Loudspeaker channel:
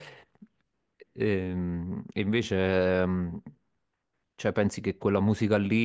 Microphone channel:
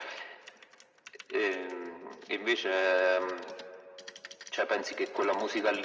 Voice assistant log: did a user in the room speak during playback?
No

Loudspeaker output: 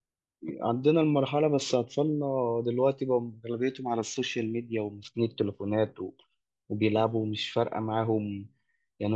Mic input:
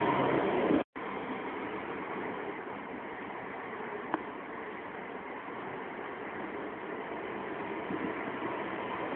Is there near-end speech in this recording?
No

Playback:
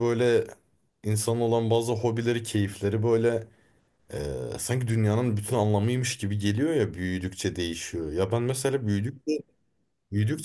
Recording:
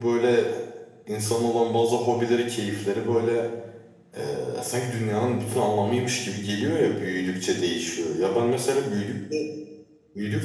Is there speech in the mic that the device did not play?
No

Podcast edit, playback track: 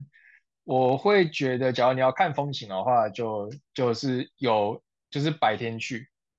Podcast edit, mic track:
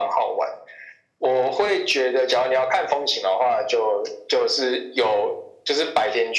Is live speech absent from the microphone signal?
Yes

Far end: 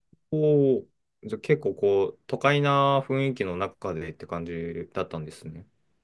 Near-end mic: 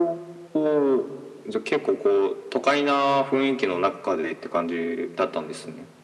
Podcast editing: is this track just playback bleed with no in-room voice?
Yes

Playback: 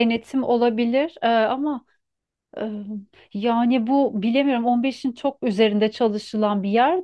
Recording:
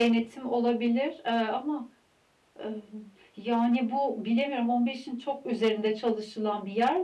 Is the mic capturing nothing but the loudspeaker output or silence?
Yes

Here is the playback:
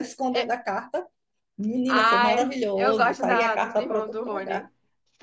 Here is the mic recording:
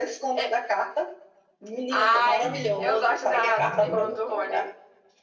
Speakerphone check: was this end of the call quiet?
No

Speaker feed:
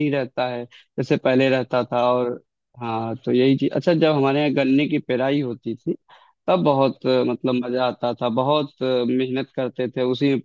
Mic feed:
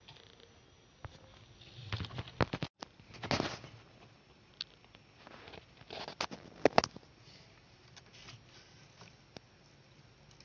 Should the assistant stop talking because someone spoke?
No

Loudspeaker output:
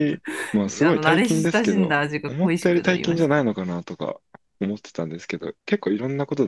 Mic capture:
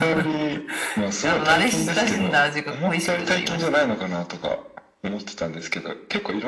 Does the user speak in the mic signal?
Yes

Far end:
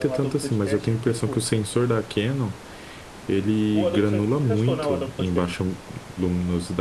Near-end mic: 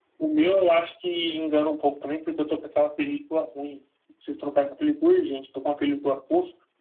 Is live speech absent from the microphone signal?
No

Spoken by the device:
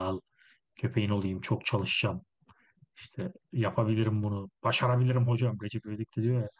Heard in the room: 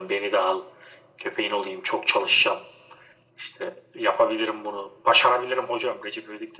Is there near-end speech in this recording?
No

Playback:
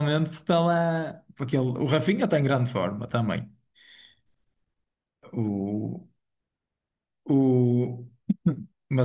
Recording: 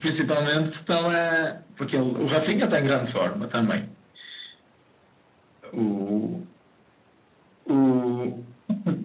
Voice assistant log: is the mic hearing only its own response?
Yes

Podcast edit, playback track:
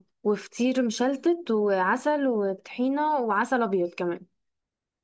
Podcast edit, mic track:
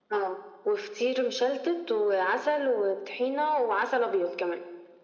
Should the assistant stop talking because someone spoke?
No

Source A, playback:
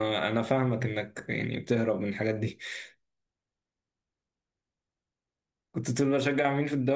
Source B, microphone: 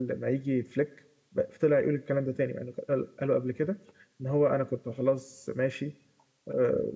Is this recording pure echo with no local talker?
No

